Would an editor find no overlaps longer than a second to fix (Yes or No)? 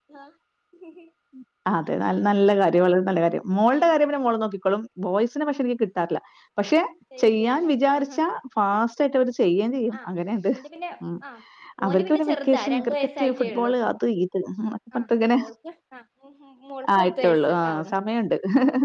No